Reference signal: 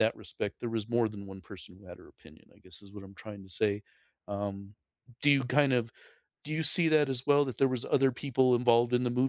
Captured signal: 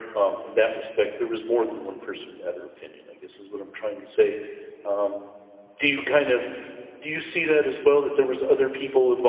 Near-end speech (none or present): none